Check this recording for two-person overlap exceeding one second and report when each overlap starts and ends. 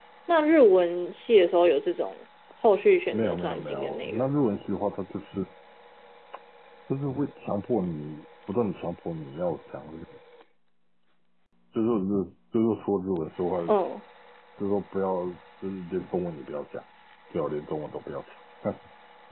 3.1-4.3

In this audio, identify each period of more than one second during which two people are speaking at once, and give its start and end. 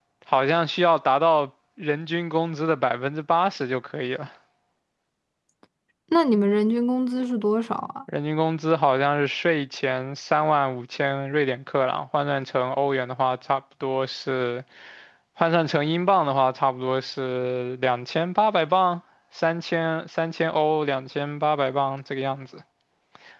none

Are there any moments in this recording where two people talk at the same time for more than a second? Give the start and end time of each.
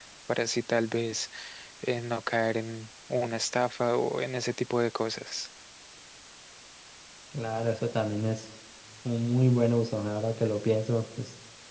none

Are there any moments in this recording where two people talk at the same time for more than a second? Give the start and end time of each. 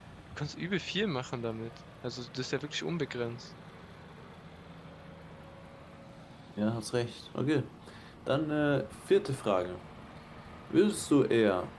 none

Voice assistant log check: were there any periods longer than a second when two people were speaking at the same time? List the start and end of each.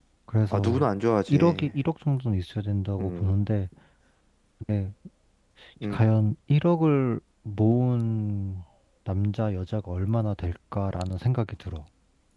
none

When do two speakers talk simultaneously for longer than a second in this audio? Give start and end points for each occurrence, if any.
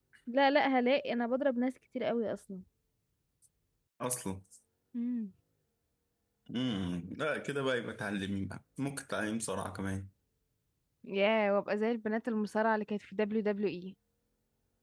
none

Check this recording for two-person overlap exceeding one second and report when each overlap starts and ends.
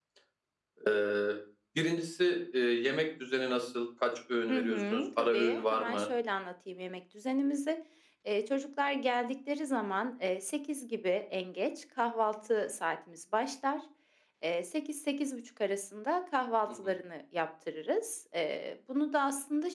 4.5-6.1

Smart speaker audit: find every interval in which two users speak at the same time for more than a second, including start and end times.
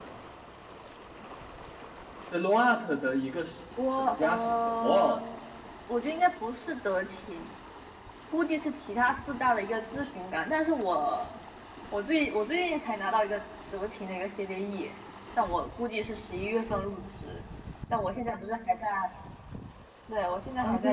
4.0-5.2

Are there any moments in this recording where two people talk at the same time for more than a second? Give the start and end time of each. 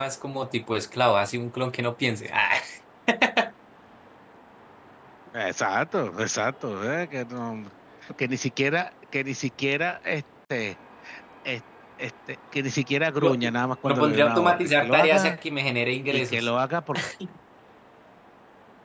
13.8-15.4

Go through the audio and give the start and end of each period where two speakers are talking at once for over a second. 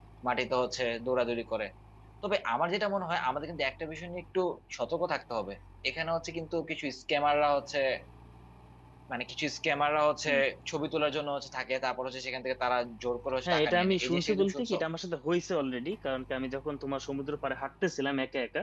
13.4-14.8

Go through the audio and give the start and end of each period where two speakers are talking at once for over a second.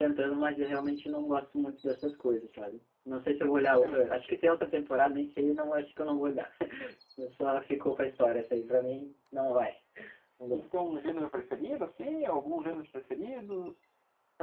none

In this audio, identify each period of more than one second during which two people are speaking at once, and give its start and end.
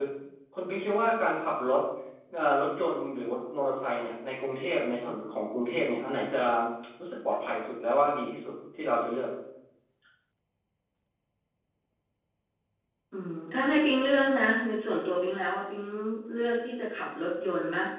none

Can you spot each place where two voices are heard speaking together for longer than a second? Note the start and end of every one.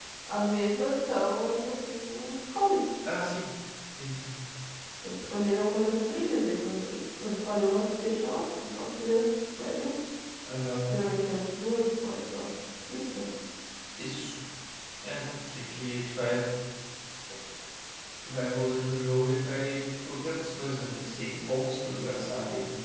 none

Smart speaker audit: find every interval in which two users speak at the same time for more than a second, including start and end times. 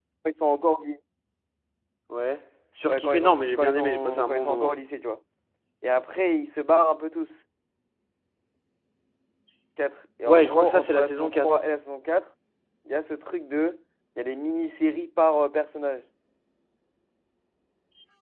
2.9-4.7, 10.2-11.6

